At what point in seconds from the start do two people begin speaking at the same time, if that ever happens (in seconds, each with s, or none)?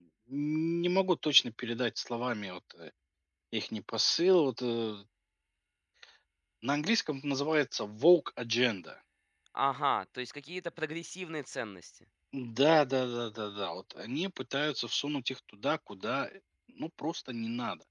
none